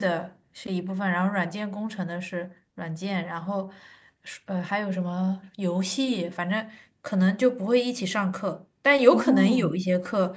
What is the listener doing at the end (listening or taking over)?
listening